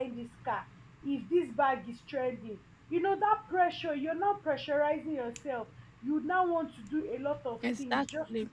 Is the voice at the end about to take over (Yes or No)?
No